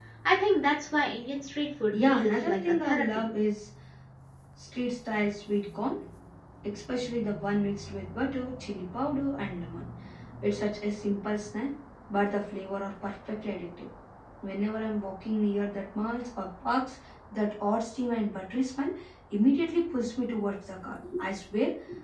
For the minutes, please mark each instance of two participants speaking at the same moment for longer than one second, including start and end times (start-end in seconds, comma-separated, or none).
1.9-3.2